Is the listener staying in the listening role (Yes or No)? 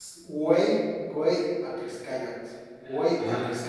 No